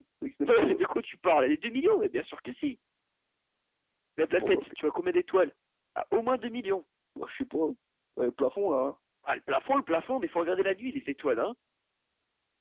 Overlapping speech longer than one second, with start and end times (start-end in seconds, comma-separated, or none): none